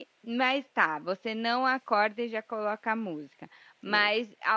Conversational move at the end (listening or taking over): listening